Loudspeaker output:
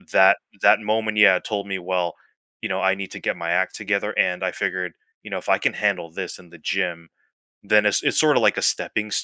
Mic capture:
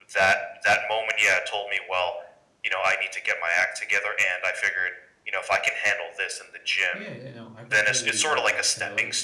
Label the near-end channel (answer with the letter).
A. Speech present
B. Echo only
A